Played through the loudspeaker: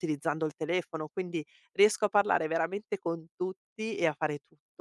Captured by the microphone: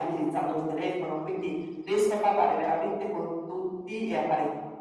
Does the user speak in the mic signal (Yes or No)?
No